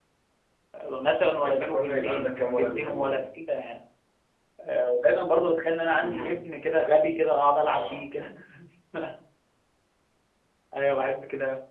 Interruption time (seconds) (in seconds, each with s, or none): 1.4 s